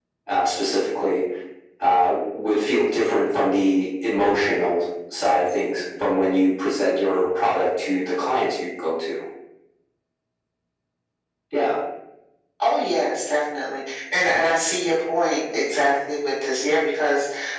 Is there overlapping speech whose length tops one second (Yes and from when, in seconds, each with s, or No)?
No